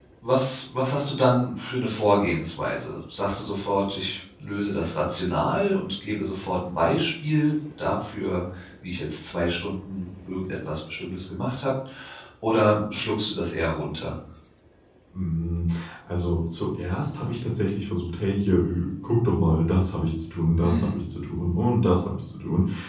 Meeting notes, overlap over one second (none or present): none